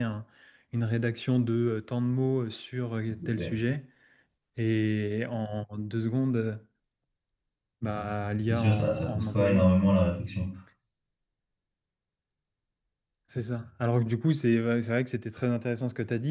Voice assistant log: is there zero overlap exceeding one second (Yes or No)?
No